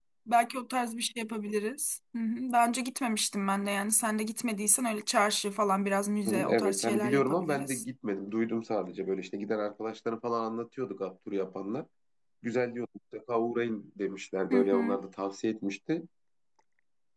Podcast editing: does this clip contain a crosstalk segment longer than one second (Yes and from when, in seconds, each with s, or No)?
Yes, from 6.2 s